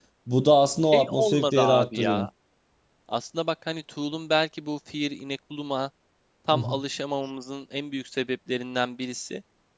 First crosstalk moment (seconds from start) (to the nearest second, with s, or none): 1 s